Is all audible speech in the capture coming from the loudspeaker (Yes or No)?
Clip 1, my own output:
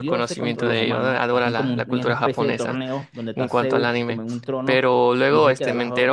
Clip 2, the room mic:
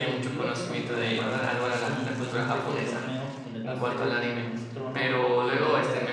Yes